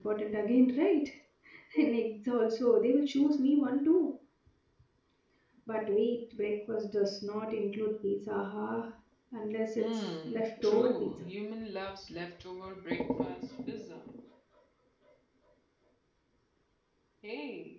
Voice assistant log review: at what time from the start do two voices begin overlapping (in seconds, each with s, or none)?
9.8 s